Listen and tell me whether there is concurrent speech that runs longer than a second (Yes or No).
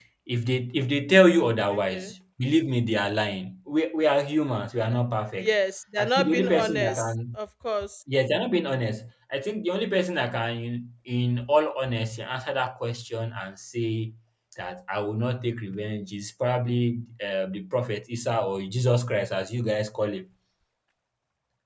Yes